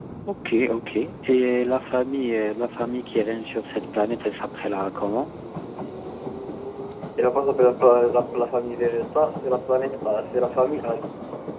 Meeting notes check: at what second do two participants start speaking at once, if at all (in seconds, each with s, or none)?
none